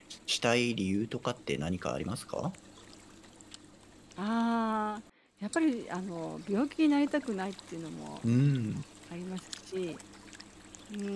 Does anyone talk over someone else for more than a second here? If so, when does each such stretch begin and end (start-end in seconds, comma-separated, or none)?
none